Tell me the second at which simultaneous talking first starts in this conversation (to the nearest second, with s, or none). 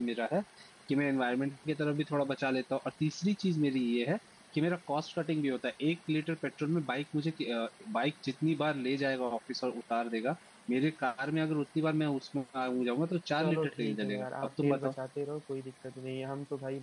13 s